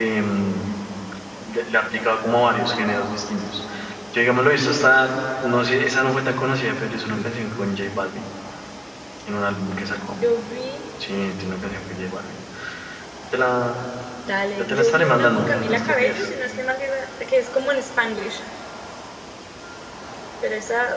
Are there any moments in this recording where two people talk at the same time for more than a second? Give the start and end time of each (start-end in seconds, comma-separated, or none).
14.6-16.3